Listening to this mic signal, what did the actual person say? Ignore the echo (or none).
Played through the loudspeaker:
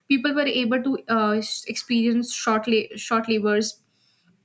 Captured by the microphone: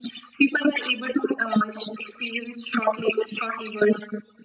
none